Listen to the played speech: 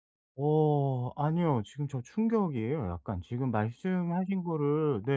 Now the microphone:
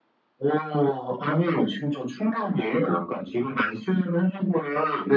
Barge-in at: none

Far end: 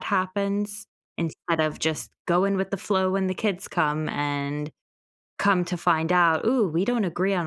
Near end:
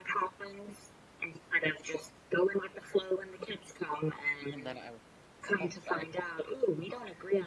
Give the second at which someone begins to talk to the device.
4.5 s

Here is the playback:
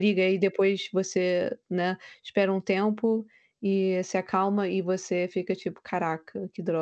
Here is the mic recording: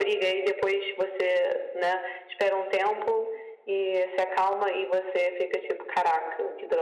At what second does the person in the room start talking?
none

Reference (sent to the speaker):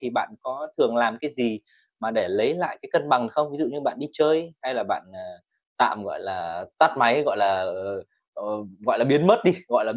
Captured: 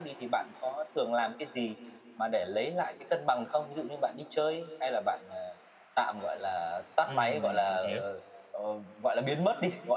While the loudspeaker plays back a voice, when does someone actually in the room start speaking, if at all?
7.0 s

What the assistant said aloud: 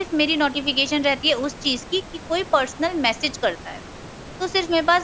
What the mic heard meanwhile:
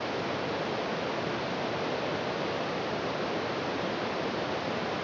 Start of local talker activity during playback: none

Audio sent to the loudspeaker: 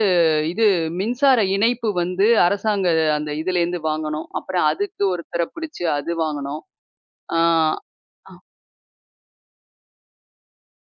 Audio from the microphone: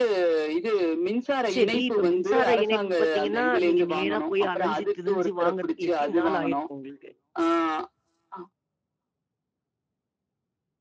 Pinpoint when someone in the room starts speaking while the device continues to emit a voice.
1.5 s

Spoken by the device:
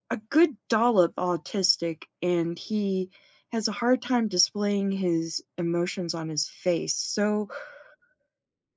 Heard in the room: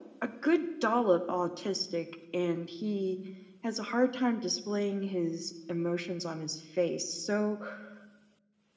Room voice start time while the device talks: none

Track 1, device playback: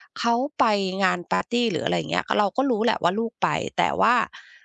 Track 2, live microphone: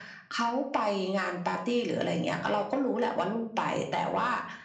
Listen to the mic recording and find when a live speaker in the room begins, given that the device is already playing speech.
none

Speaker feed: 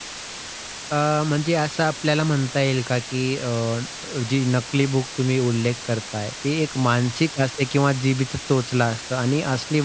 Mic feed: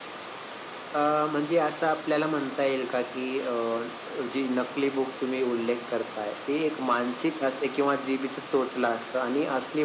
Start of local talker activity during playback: none

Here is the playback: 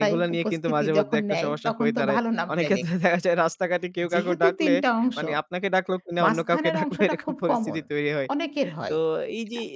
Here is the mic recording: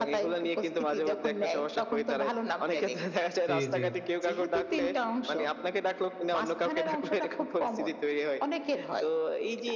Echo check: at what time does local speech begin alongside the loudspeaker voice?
3.5 s

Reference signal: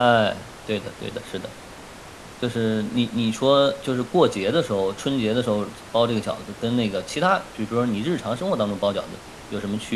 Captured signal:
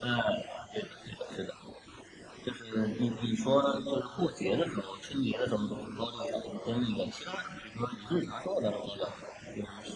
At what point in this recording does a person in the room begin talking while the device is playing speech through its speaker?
none

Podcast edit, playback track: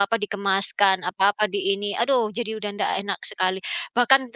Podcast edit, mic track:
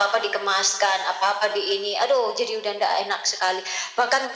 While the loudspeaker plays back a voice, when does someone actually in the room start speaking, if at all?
none

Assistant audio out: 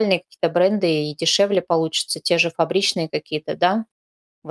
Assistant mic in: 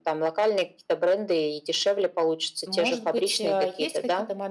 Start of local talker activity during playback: 2.6 s

